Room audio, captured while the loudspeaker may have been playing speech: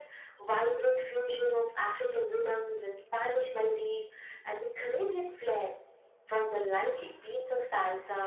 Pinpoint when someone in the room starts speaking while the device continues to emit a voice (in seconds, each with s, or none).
none